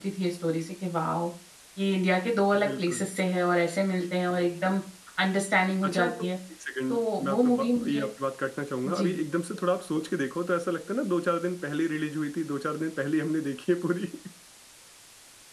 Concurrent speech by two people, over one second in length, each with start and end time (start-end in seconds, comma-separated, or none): 6.9-8.1